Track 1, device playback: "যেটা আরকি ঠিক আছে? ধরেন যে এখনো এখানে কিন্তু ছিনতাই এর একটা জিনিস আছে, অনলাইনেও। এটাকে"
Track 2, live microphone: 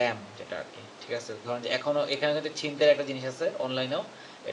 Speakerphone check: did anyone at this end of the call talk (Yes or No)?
No